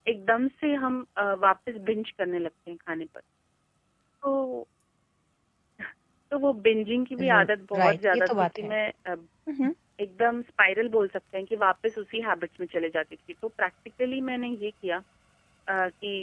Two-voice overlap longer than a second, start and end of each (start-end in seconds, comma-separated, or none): 7.2-8.7